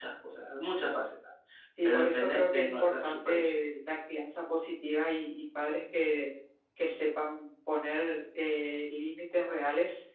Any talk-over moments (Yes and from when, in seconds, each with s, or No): Yes, from 1.8 s